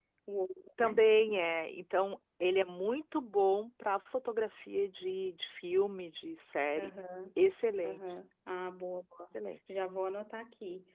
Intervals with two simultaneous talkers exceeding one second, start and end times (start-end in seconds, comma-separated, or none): none